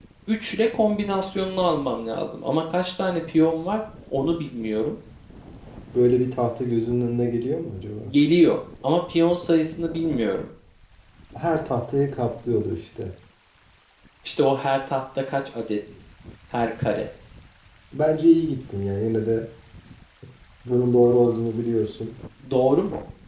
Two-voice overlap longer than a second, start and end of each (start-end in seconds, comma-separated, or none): none